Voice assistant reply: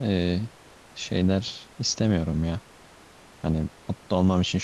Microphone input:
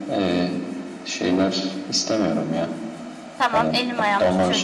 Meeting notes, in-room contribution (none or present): present